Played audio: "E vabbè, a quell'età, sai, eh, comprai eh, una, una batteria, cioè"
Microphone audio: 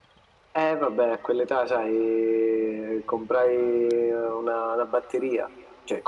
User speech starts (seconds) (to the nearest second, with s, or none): none